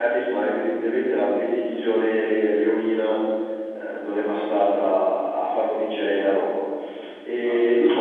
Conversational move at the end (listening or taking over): listening